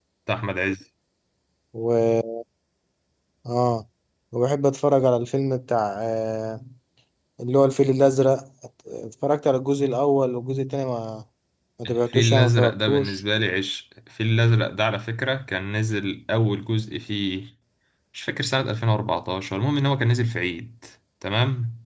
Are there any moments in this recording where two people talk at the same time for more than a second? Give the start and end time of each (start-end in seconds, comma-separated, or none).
11.9-13.2